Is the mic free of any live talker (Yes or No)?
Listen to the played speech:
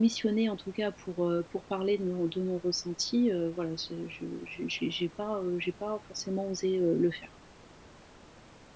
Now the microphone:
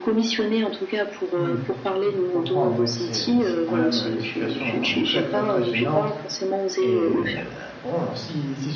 No